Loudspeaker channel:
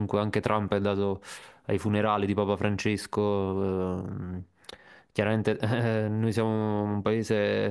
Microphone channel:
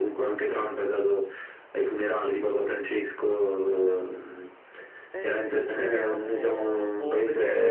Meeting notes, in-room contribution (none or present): present